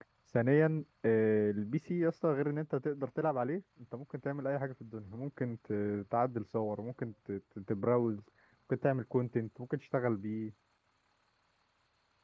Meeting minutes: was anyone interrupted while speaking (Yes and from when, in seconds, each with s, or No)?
No